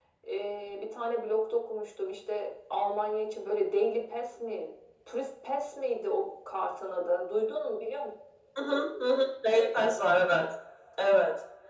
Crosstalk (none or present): none